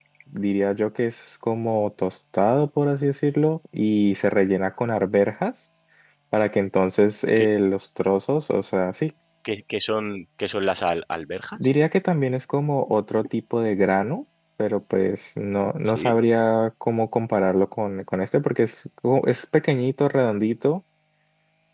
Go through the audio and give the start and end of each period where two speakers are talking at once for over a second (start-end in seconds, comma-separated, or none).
none